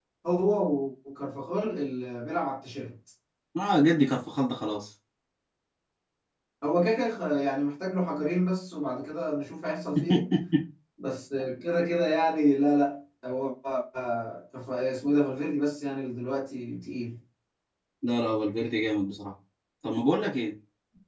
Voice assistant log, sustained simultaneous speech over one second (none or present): none